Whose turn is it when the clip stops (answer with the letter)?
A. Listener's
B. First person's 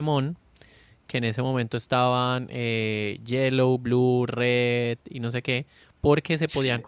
B